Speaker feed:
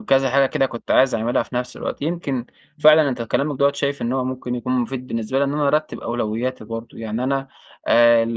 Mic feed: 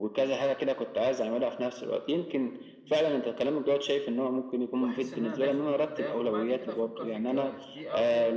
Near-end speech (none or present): present